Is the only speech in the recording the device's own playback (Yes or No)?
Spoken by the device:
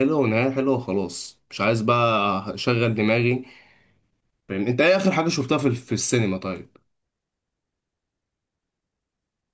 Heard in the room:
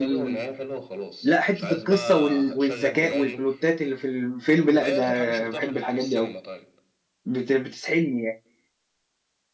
No